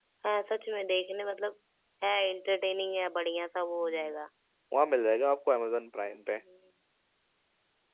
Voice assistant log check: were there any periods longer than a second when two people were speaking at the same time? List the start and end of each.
none

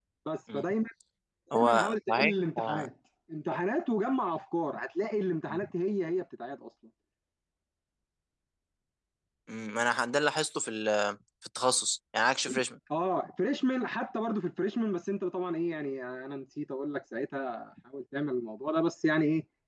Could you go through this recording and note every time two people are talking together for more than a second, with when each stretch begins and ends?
1.6-2.9

